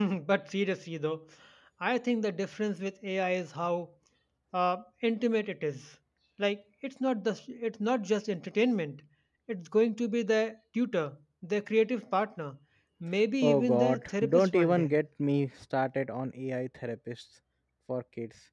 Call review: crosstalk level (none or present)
present